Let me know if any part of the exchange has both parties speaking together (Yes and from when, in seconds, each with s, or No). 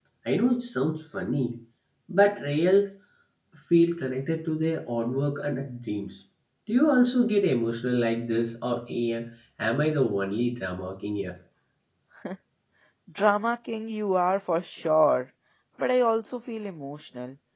No